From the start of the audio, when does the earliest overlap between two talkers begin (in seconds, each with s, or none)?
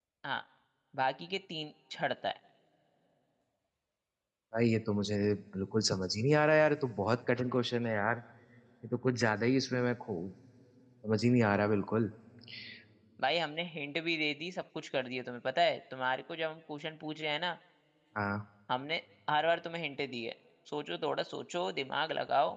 none